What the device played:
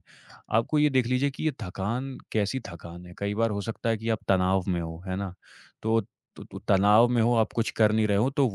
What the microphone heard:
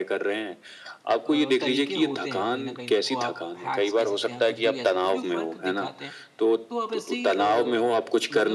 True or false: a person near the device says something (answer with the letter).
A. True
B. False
A